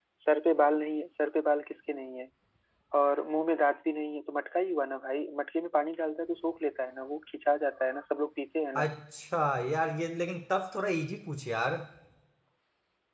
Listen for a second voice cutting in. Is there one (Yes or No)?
No